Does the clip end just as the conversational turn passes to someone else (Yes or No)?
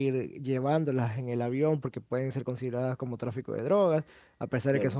No